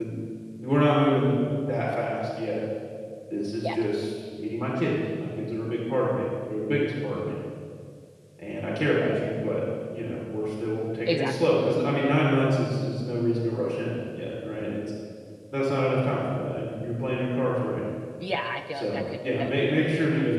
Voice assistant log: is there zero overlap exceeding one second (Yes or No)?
No